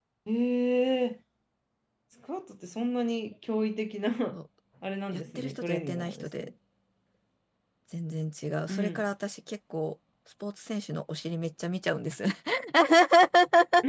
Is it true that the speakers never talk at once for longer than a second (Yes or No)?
No